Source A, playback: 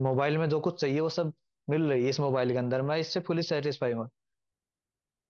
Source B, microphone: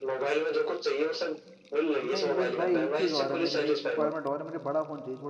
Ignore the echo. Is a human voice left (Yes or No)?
Yes